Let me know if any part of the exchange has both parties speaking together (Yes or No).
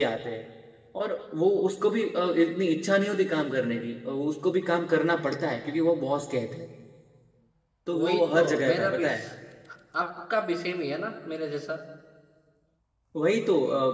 Yes